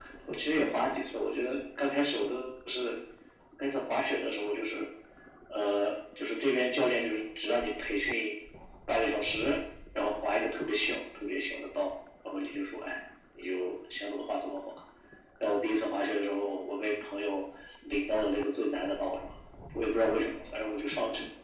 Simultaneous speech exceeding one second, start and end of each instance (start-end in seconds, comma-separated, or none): none